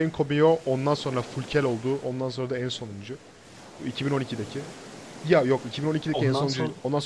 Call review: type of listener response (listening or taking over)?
listening